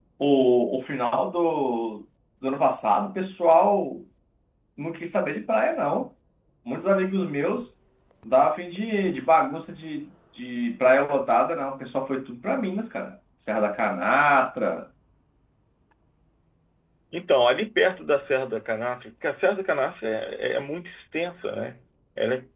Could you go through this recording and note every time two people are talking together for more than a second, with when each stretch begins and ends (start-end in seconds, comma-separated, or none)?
none